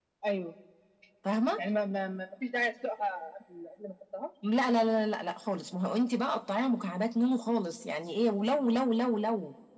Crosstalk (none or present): none